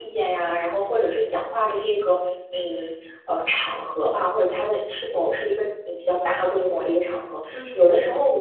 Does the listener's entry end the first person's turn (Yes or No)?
No